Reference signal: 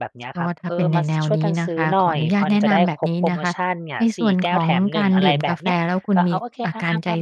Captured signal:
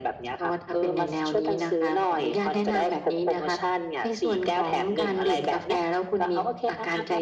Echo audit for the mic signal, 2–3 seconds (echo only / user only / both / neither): echo only